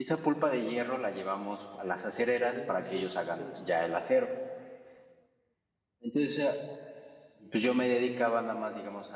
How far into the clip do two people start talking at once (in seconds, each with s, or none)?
2.2 s